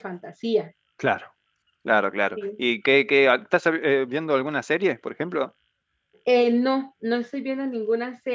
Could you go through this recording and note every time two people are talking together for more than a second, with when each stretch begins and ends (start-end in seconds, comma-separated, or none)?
none